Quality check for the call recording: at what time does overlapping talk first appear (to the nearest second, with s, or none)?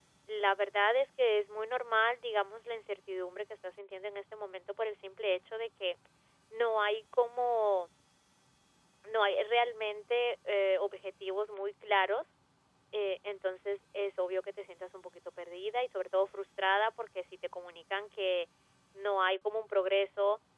none